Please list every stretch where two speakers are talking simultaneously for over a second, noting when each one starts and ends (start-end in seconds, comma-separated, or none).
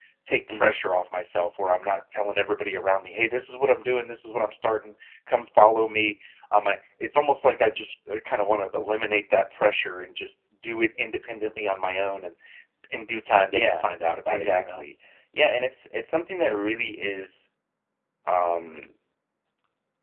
none